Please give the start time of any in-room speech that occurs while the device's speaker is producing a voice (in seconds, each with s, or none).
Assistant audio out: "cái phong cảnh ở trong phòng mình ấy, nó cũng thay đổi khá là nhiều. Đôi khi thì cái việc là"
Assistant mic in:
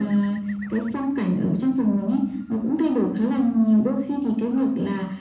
none